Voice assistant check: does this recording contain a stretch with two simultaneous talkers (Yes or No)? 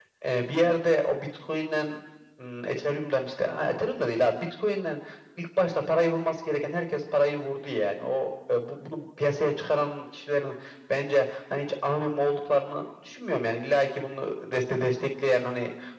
No